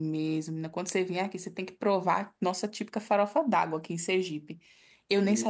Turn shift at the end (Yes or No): Yes